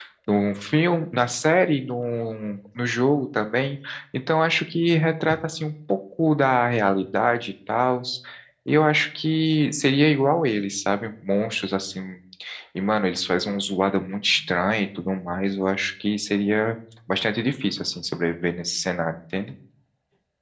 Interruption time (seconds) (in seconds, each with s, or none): none